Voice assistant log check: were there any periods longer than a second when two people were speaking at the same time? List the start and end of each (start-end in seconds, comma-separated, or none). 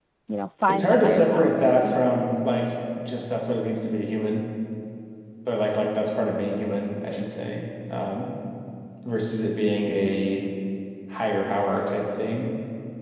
0.7-1.9